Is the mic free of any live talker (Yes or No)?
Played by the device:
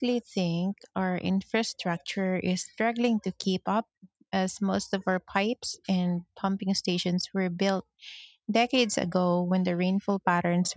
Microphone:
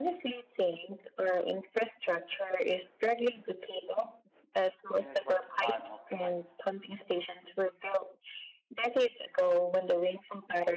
No